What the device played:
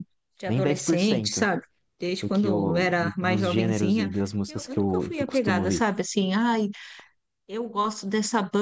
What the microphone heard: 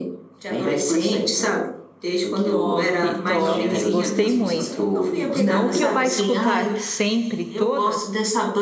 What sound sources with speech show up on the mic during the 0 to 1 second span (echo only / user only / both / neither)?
echo only